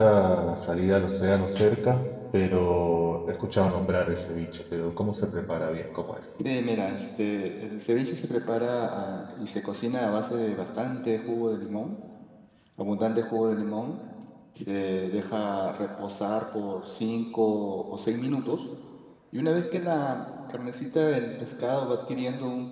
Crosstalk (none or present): none